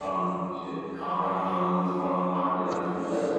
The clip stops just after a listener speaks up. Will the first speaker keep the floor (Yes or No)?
No